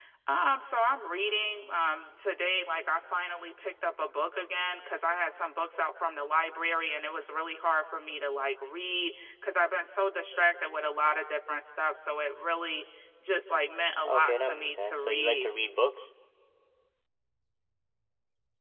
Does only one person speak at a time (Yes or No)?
No